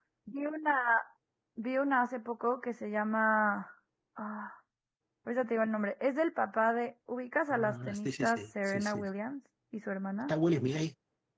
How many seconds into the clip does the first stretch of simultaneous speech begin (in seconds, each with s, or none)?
7.5 s